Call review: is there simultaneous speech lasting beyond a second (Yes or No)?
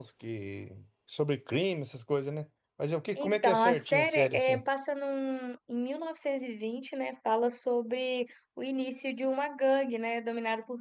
Yes